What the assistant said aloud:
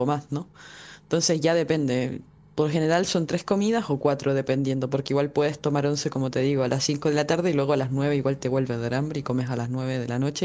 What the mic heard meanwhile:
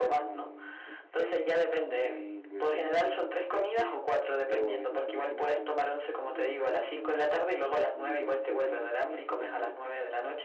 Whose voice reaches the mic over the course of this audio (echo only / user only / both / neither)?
both